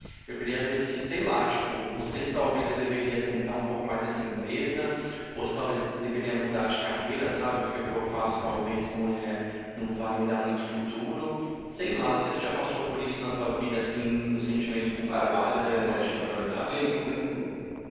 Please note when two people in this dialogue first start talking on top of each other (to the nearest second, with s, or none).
15 s